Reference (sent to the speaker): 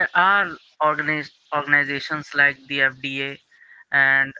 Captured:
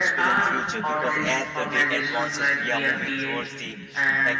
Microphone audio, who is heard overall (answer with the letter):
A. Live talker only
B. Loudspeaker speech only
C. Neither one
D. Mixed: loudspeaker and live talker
D